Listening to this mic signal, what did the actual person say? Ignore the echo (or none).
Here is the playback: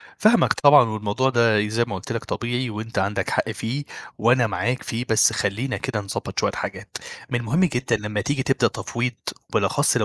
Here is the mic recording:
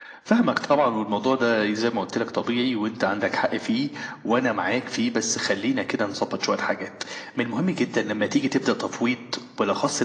none